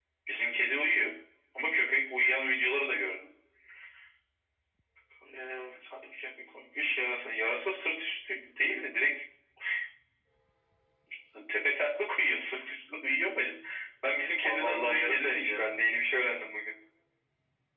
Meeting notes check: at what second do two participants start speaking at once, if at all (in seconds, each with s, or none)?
14.4 s